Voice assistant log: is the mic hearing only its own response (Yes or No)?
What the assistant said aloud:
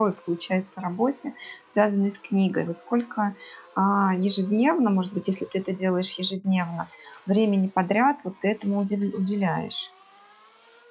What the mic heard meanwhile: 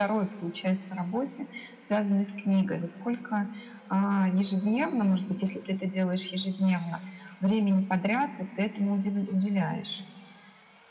Yes